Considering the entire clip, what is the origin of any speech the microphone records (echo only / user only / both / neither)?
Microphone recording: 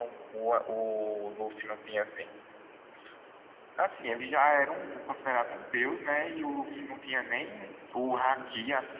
echo only